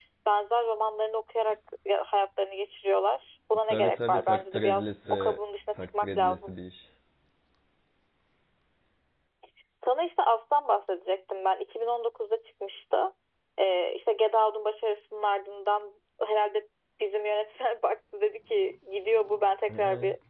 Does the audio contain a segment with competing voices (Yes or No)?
Yes